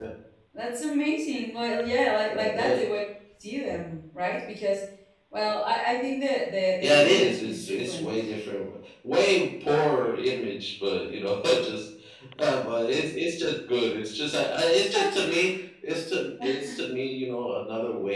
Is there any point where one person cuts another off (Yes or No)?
Yes